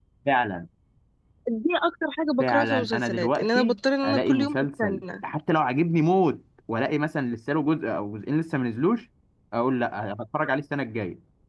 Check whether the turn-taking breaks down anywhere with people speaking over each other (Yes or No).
Yes